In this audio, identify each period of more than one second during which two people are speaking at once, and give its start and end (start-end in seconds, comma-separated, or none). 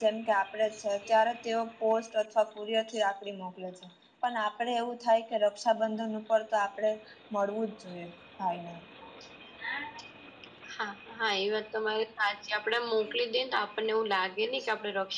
none